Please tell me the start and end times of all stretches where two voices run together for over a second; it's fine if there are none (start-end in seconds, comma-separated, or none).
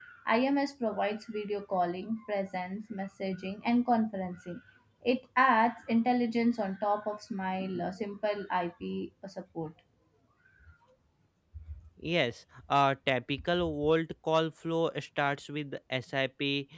none